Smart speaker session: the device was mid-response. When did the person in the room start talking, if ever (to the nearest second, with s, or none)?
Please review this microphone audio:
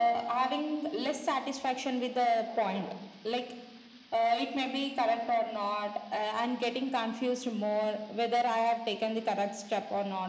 none